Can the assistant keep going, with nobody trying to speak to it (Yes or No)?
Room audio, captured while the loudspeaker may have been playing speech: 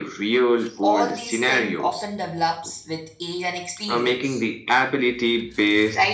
No